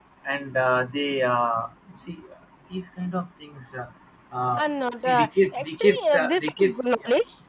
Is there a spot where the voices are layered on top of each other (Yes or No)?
Yes